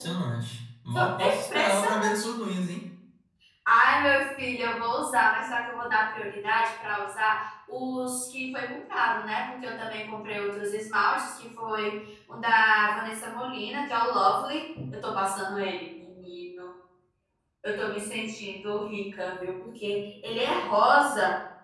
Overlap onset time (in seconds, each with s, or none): 0.9 s